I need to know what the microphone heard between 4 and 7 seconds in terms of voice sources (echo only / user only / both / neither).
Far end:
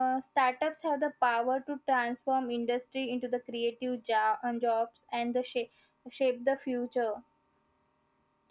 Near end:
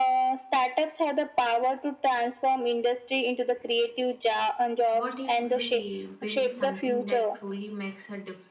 both